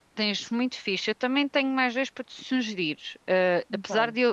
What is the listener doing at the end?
listening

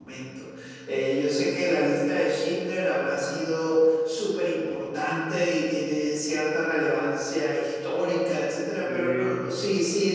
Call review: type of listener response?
listening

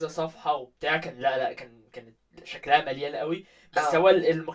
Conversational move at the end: listening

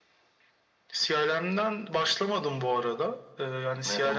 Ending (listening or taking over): listening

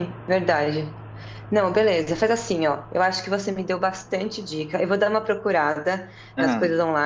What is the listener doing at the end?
listening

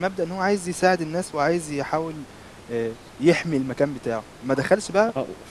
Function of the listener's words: listening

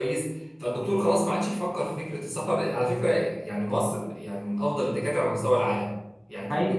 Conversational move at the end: listening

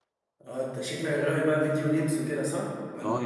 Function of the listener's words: taking over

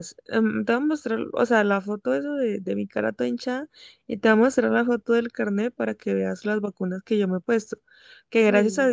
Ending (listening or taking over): listening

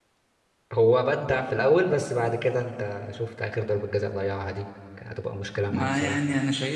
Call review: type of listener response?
taking over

